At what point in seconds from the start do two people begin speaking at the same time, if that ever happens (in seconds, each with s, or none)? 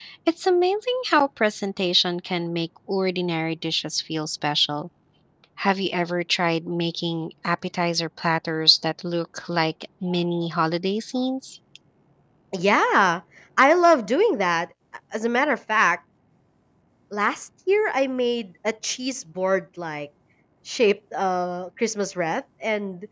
none